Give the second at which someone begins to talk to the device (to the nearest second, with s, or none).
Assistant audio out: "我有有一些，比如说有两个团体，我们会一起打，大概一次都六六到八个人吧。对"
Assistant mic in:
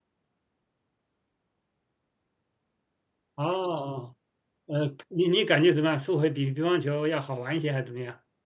3 s